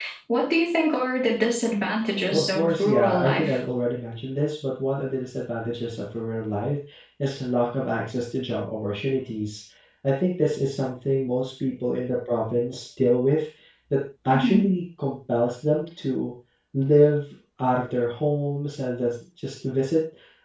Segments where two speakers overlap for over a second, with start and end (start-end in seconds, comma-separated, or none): 2.3-3.6